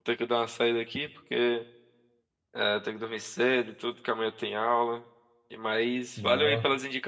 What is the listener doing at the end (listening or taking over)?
listening